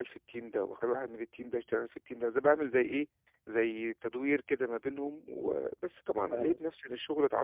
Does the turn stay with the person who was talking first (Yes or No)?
Yes